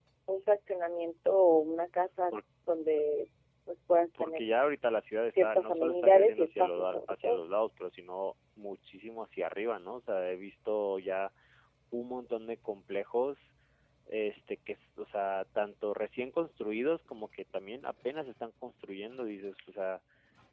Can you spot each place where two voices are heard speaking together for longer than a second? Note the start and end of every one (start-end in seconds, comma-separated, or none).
5.4-7.4